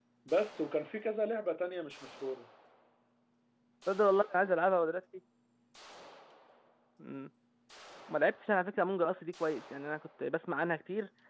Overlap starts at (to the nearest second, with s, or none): none